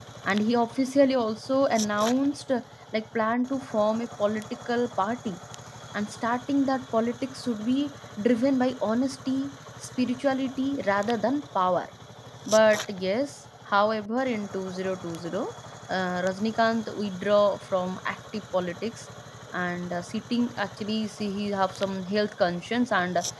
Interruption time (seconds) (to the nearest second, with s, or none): none